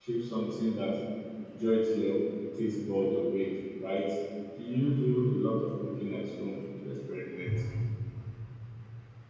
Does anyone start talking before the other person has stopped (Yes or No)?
No